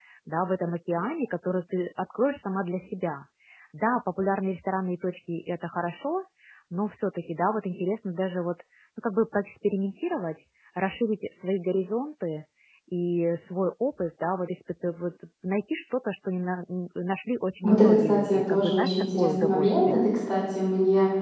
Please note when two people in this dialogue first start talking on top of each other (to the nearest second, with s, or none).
18 s